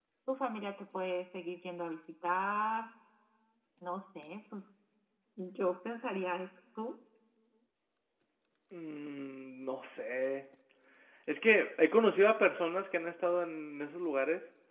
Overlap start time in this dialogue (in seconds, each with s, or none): none